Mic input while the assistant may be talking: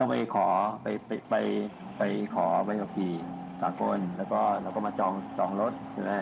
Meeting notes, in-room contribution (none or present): none